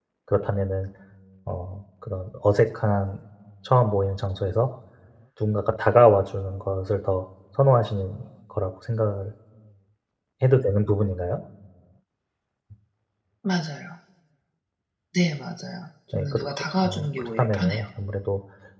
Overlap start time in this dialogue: 16.1 s

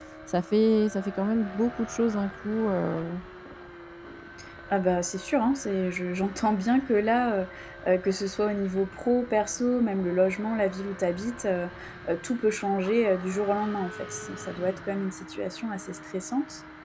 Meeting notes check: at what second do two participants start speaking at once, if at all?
none

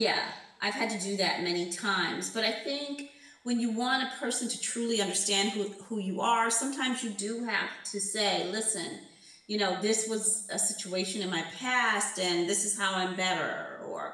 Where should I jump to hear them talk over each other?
none

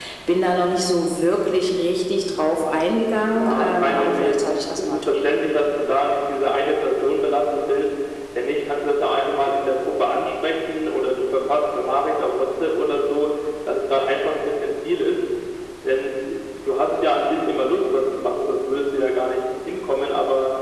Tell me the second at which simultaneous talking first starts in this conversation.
3.3 s

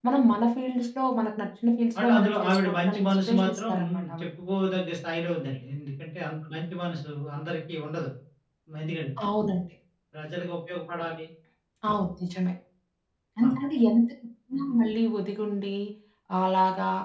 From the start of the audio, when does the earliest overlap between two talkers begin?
1.9 s

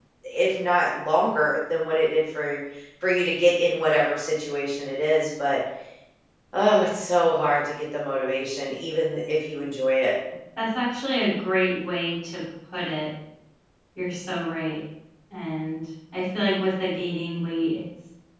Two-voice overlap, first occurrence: none

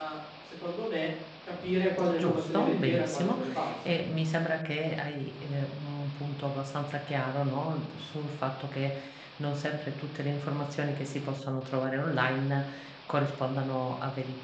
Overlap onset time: 2.2 s

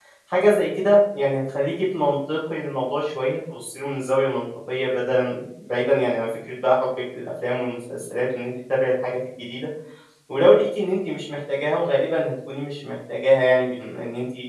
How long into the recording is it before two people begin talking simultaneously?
none

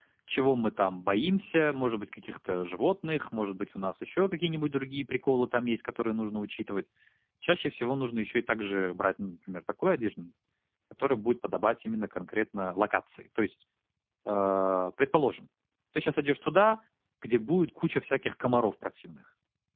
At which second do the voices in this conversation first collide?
none

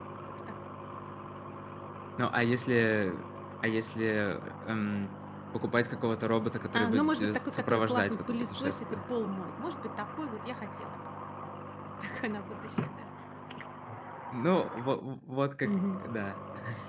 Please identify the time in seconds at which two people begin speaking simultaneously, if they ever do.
6.7 s

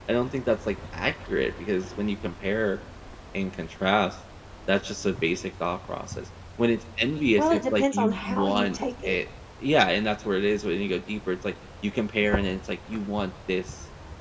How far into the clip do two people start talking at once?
7.4 s

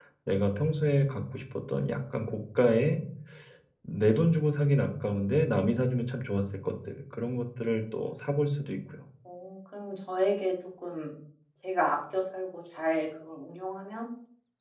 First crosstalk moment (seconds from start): none

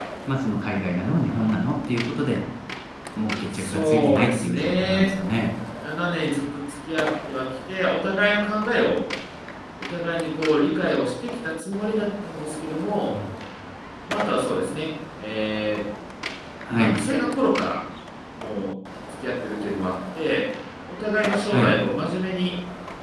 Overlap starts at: 3.5 s

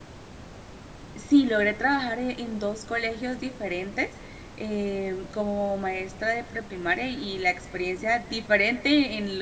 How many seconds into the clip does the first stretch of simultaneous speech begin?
none

